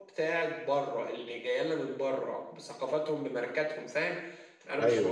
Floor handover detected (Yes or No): No